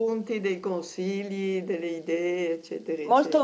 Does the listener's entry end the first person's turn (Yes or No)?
Yes